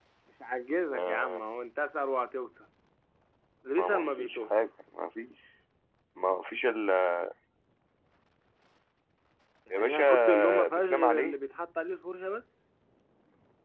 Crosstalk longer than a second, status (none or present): present